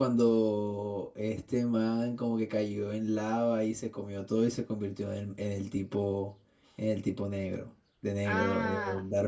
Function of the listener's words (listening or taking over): taking over